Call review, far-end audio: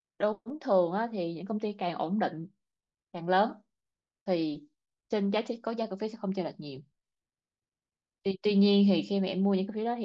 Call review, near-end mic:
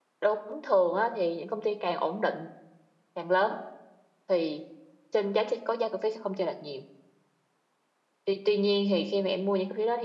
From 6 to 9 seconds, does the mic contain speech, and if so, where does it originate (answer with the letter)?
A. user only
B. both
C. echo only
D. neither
C